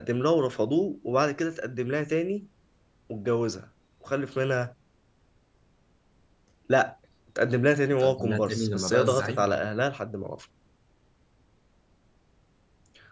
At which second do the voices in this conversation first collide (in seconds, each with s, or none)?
7.9 s